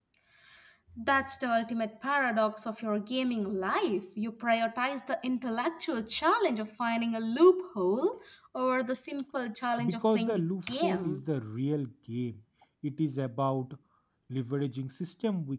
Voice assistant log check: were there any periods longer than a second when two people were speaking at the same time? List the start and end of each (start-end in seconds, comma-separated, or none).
9.8-11.2